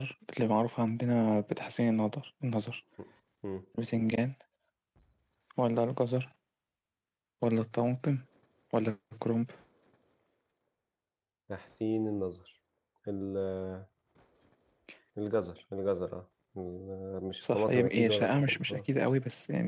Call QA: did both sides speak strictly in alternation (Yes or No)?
No